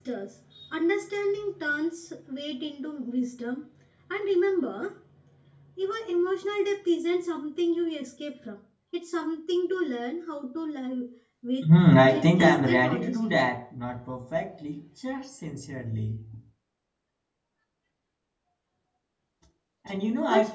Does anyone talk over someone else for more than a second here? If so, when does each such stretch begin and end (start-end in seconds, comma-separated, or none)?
12.1-13.4